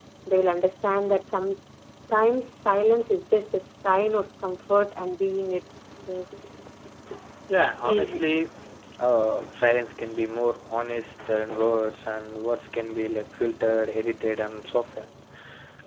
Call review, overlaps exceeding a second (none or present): none